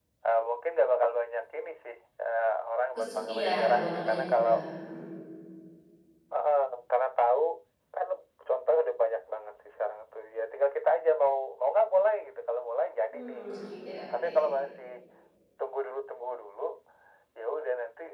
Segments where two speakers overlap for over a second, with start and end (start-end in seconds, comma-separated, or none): 3.0-4.5